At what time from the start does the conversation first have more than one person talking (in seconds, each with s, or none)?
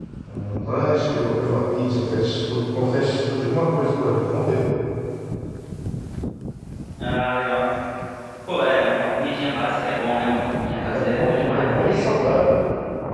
10.7 s